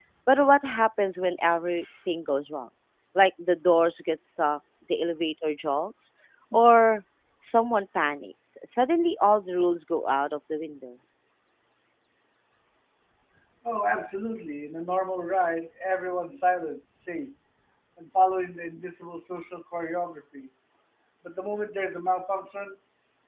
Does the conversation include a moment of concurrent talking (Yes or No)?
No